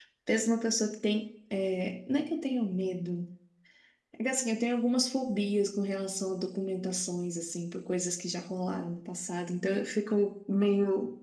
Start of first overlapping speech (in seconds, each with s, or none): none